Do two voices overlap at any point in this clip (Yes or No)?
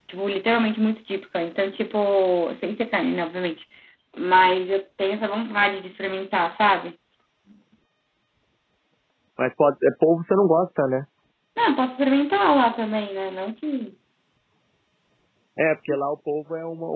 No